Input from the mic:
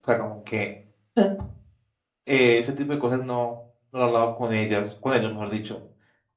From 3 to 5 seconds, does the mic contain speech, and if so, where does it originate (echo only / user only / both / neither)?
user only